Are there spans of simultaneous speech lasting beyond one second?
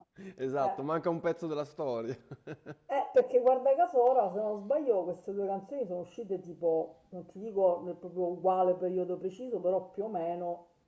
No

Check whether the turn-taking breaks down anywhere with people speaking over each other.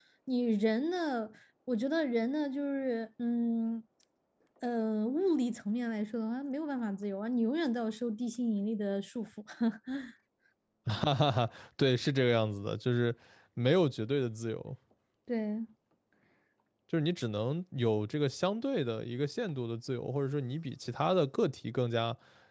No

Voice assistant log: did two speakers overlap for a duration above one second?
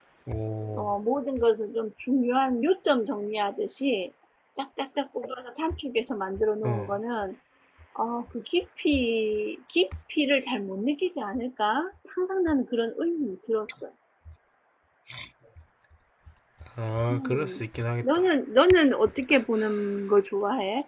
No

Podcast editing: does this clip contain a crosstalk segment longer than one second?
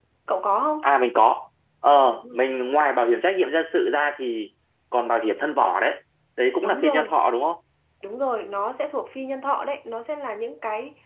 No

